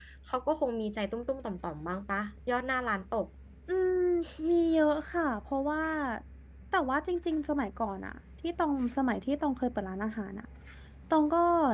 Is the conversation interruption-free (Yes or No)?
Yes